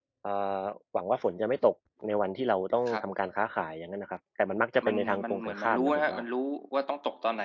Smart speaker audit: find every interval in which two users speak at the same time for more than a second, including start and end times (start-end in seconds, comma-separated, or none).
4.8-6.2